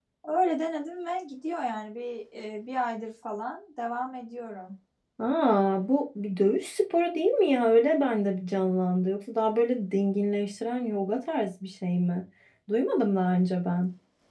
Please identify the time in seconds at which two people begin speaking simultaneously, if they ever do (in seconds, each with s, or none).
none